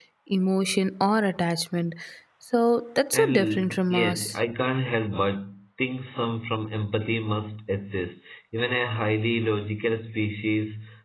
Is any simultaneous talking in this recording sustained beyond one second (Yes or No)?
Yes